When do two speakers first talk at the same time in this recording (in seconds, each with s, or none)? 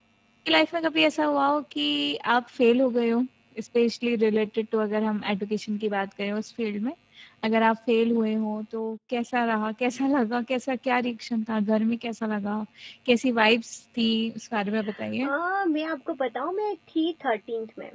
none